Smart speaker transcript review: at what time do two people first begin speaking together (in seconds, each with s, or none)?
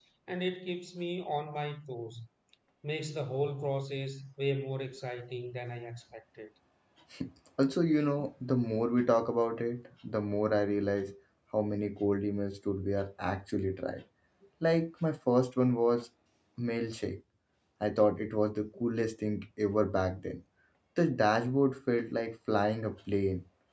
none